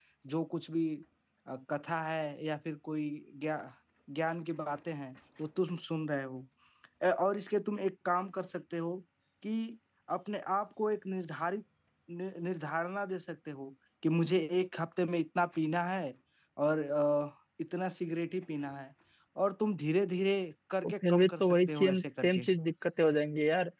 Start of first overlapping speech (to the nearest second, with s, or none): 21 s